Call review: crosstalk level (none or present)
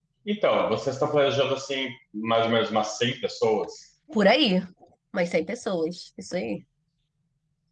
none